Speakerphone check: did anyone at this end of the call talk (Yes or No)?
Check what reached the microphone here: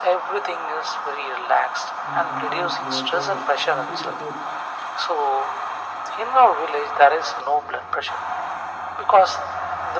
Yes